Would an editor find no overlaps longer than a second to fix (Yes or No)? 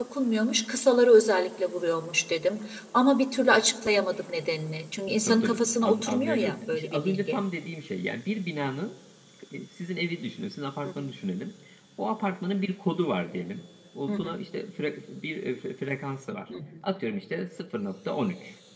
No